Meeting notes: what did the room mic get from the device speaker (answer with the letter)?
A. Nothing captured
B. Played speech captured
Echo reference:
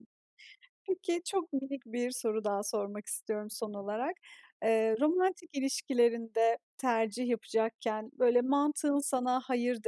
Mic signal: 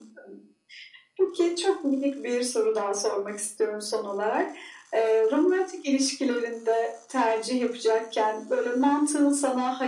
B